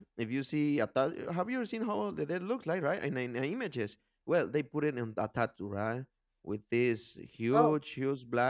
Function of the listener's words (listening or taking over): listening